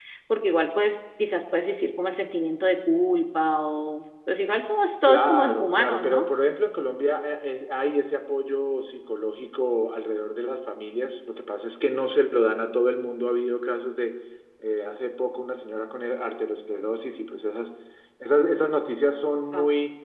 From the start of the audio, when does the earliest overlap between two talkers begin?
5 s

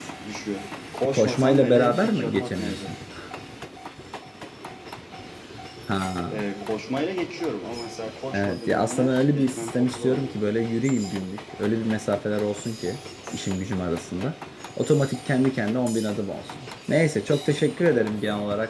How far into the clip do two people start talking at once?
1 s

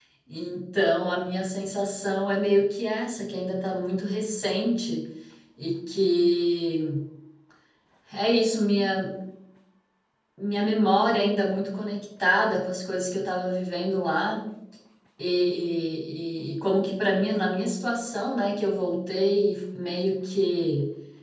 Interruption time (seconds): none

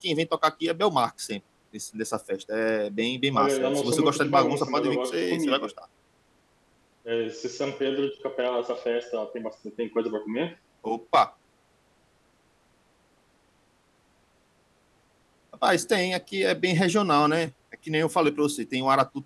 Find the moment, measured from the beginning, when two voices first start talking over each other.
3 s

